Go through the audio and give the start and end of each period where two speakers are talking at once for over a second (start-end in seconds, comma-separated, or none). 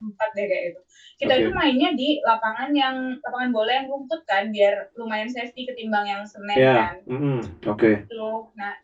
none